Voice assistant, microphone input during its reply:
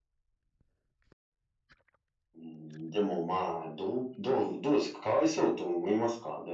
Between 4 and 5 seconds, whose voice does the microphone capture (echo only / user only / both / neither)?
echo only